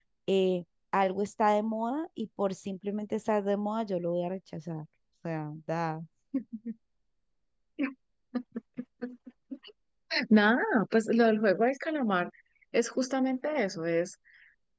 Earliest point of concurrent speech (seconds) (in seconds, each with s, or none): none